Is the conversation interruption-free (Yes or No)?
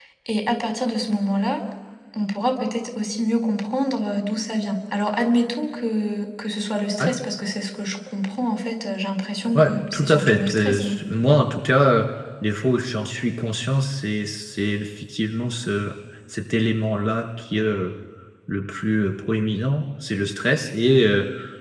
No